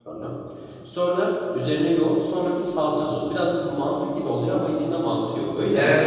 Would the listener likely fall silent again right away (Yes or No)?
No